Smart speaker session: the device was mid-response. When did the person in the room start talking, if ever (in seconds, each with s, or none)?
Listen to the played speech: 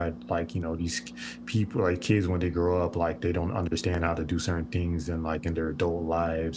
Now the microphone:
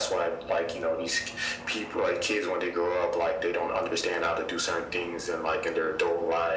none